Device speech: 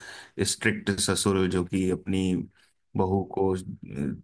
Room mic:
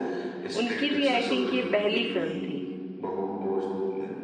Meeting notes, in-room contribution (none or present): present